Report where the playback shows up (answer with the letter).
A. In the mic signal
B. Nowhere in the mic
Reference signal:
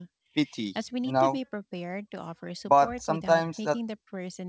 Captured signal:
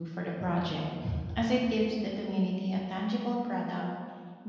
B